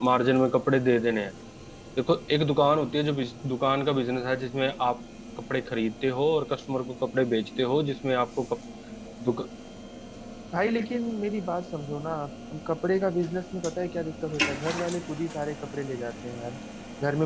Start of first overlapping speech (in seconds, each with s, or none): none